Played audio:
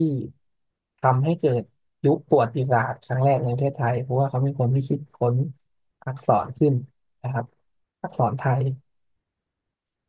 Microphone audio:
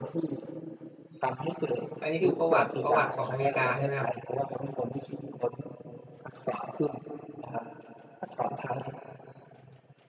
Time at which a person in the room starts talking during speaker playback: 2 s

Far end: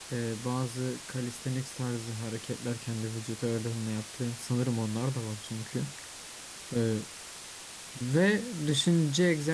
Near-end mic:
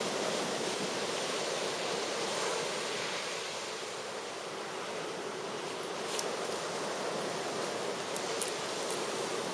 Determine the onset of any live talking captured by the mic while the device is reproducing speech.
none

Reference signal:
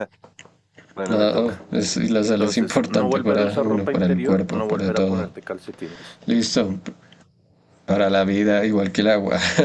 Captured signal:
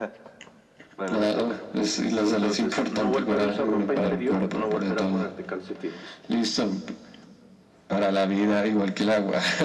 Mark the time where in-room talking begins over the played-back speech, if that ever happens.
4 s

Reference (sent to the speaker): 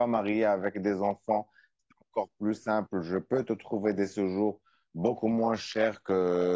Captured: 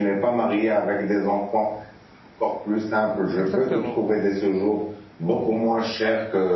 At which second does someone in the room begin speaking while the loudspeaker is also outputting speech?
3 s

